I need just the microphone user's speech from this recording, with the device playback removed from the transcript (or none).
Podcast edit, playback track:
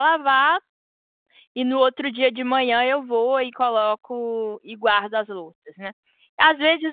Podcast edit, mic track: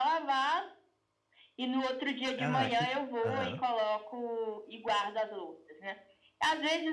ah, que aham.